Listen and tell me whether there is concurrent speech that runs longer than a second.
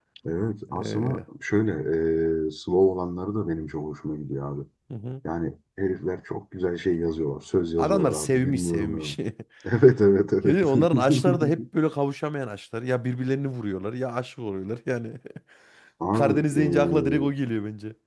Yes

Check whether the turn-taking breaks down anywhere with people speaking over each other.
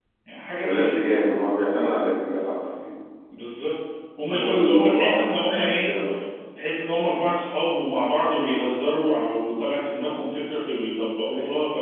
Yes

